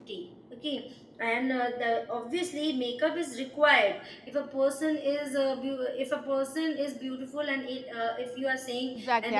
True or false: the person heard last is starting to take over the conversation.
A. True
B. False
A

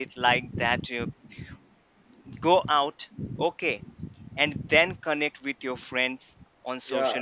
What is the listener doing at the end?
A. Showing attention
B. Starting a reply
B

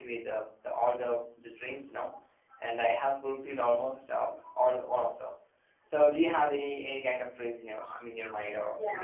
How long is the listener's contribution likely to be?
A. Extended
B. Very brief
A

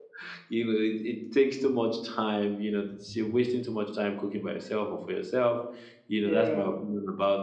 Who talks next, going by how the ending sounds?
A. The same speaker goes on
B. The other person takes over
A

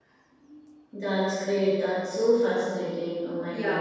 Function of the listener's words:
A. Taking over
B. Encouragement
A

